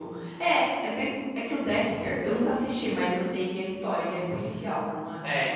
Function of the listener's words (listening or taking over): taking over